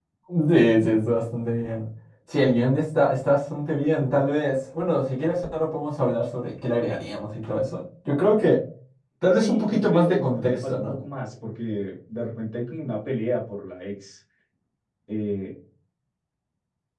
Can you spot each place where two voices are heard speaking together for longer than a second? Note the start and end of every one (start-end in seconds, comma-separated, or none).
9.3-11.0